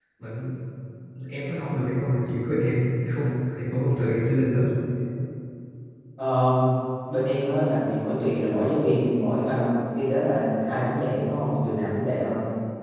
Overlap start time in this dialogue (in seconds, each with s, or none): none